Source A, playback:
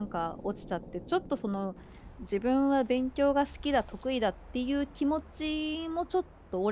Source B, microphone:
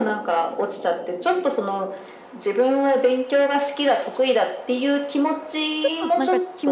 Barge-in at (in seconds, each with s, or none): 5.8 s